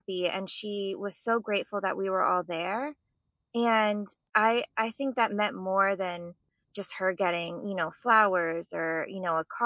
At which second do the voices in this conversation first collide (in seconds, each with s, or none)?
none